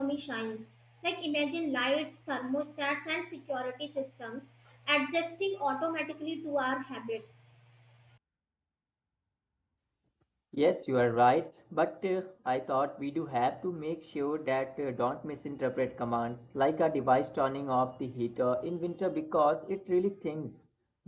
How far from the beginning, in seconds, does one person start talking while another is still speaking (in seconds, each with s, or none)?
none